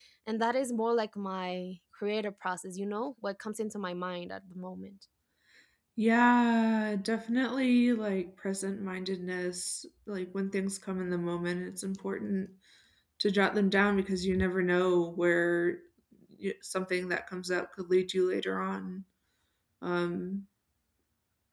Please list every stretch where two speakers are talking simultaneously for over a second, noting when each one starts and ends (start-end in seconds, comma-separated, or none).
none